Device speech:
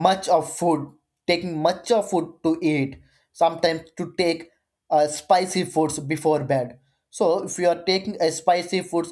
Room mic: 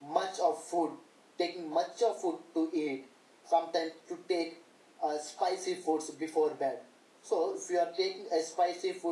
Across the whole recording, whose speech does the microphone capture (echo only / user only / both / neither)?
echo only